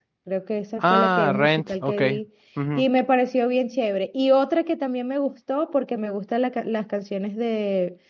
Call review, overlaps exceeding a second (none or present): present